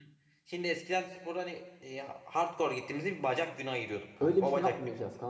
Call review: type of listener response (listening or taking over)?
taking over